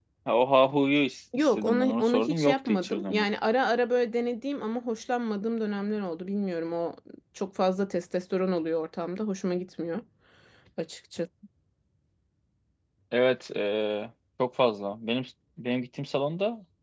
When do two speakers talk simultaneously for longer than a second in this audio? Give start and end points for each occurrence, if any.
1.4-3.2

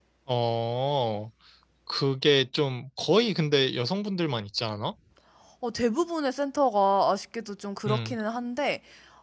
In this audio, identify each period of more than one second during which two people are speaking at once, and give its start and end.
none

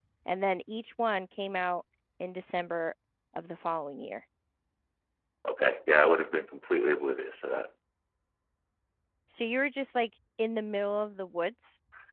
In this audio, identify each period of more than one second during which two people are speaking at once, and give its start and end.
none

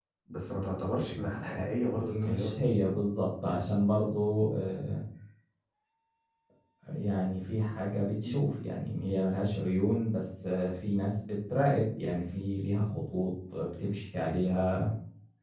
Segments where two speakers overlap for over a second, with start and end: 1.3-2.7

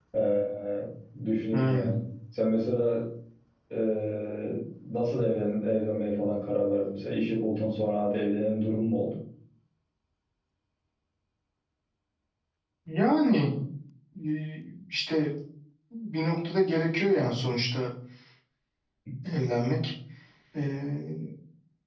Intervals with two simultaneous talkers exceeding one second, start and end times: none

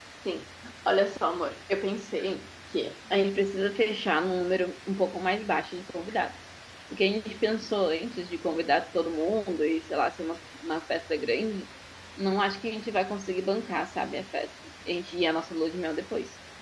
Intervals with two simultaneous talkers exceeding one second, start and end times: none

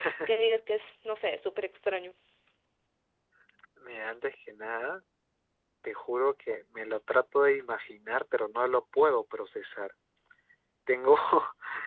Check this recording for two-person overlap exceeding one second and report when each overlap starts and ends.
none

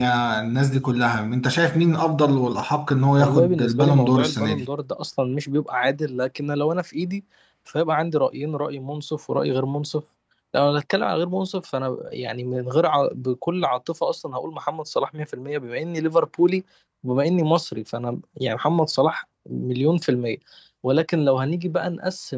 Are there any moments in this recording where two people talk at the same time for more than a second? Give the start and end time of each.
3.2-4.6

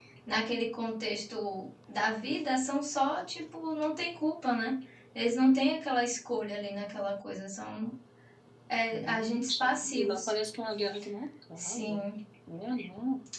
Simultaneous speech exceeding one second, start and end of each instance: 8.9-10.2

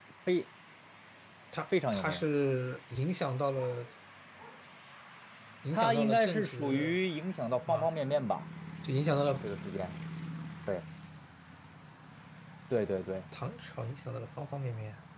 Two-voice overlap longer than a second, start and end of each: 5.7-7.0

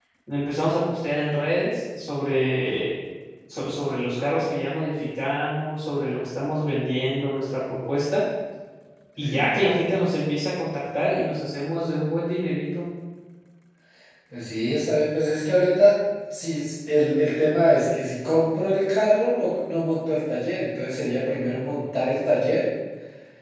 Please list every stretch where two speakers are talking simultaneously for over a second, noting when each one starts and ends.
none

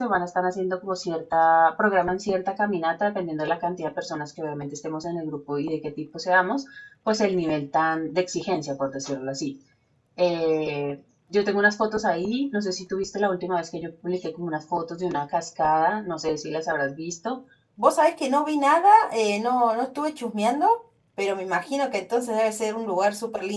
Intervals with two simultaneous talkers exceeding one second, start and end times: none

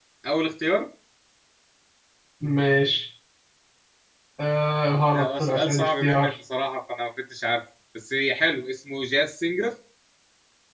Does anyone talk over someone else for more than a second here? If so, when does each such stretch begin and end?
5.1-6.3

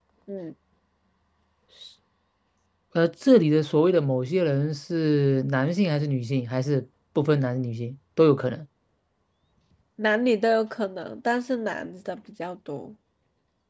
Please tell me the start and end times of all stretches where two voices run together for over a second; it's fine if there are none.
none

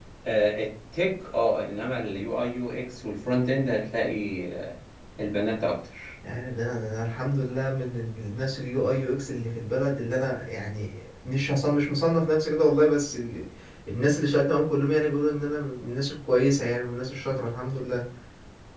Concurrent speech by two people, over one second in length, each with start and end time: none

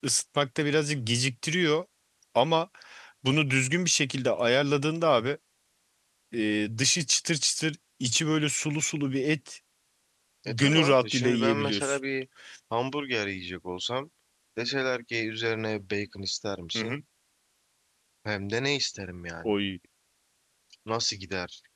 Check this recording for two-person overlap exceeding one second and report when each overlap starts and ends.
10.5-12.0

